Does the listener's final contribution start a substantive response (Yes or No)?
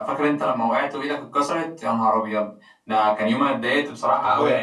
No